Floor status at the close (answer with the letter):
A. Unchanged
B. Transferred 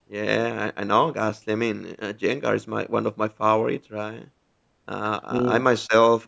A